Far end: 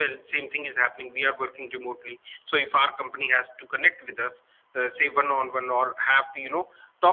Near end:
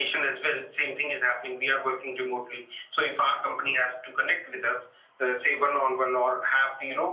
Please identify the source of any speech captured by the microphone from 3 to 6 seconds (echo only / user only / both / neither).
echo only